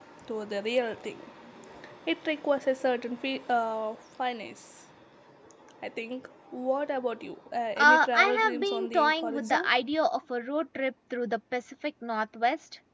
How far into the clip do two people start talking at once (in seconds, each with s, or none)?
7.8 s